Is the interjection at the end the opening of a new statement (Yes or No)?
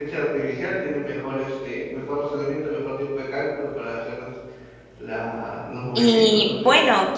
Yes